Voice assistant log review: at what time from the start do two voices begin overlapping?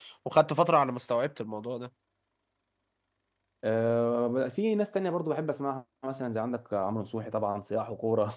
none

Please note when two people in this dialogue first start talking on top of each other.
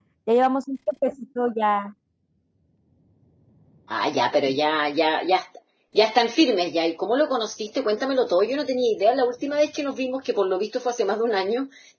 none

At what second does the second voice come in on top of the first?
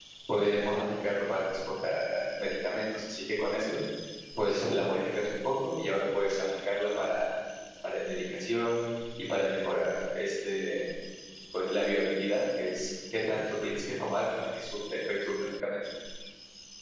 none

